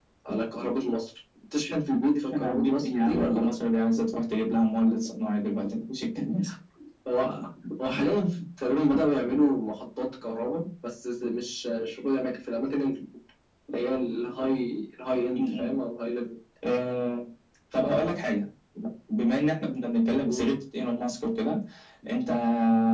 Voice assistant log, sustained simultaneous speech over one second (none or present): present